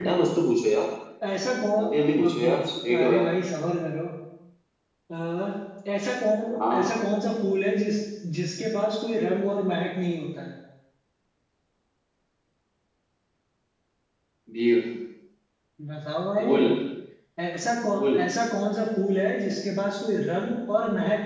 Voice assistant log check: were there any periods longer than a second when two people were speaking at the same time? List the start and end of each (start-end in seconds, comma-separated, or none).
1.8-3.4